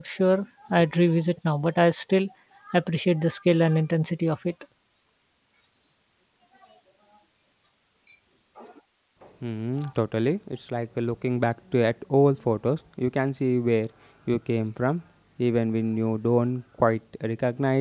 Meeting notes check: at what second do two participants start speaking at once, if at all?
none

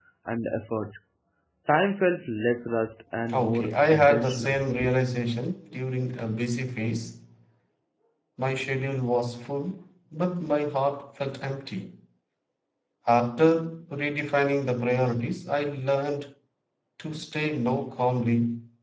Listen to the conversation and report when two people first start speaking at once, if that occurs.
3.3 s

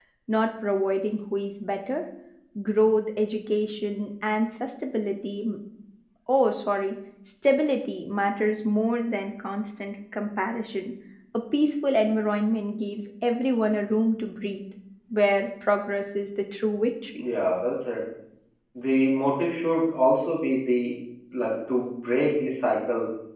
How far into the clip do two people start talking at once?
none

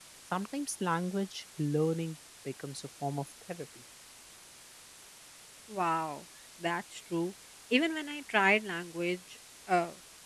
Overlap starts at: none

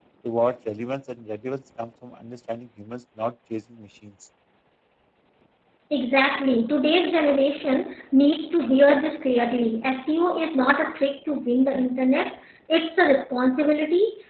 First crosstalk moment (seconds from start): none

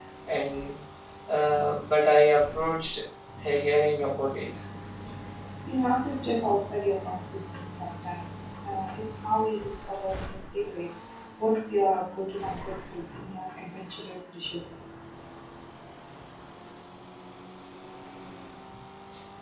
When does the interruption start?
none

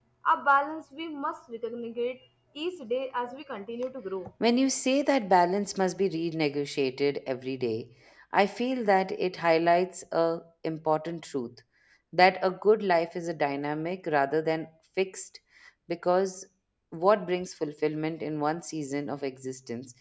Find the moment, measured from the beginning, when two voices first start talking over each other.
none

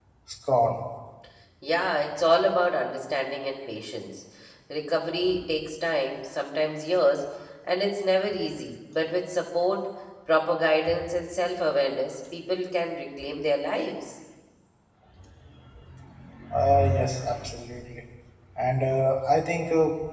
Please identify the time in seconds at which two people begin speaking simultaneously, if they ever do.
none

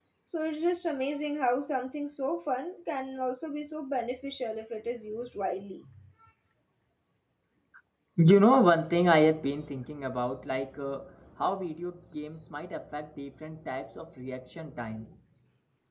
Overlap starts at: none

